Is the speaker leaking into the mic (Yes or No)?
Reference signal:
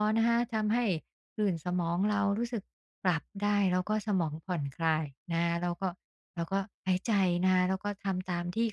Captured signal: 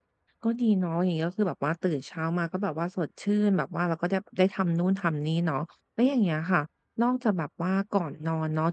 No